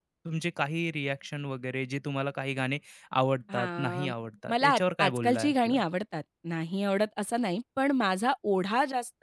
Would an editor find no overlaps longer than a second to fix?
No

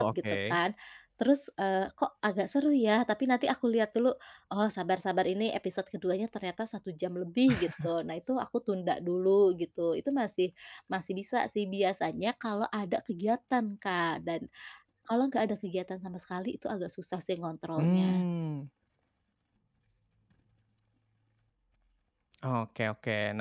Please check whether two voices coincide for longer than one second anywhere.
No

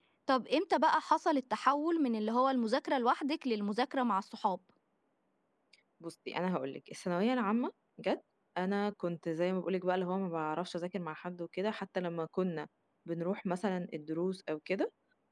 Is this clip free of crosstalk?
Yes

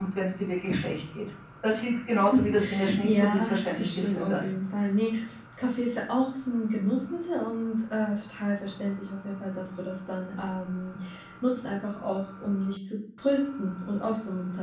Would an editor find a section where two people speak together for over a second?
Yes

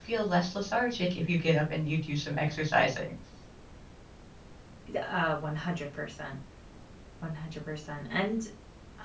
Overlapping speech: No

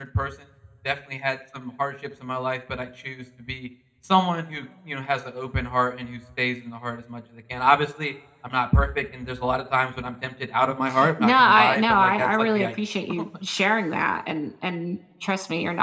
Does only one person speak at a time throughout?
No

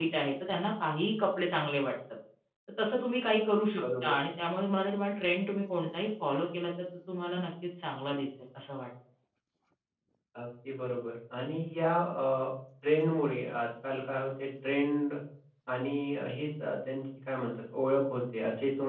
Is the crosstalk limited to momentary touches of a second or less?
Yes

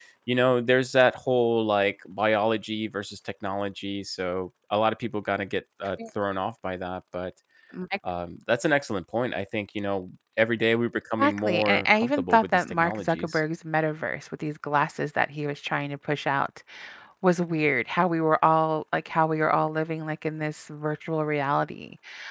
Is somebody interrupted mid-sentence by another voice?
Yes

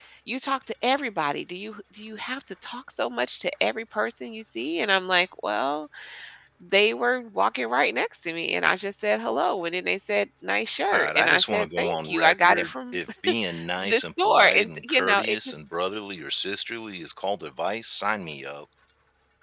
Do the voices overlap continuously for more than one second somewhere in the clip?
Yes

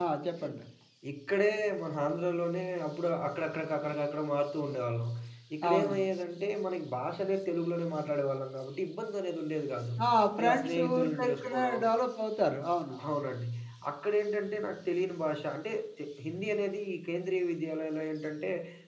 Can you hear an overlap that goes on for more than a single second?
Yes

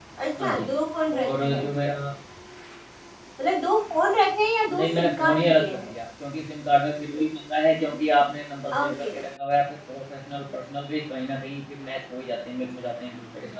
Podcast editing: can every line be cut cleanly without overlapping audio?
No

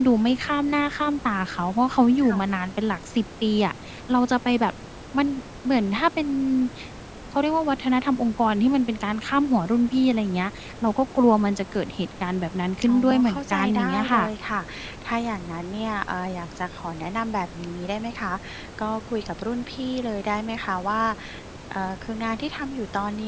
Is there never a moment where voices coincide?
No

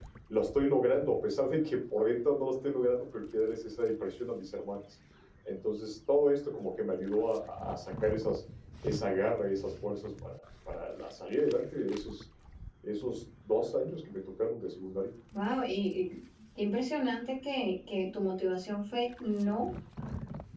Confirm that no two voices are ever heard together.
Yes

